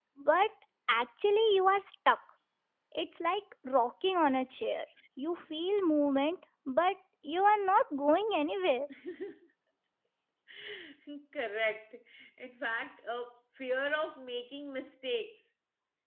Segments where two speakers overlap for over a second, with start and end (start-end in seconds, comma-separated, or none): none